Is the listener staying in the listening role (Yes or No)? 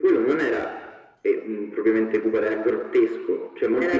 Yes